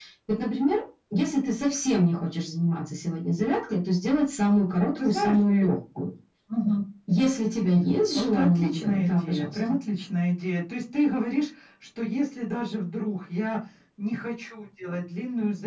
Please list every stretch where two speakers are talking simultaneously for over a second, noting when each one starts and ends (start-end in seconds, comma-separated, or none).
8.2-9.6